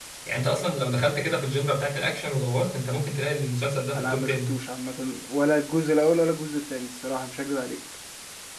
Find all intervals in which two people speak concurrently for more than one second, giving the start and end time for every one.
none

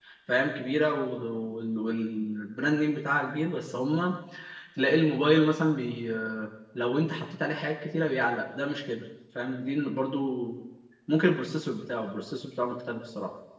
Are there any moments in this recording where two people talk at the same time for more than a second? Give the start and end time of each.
none

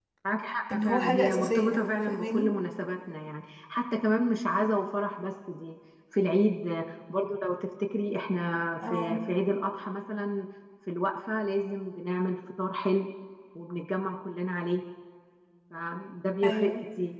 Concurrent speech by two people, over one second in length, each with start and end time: 0.7-2.5

